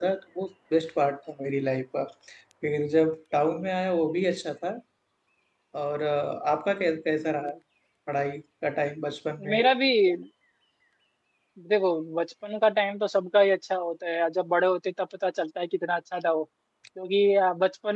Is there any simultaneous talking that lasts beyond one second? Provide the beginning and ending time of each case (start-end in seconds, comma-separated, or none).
none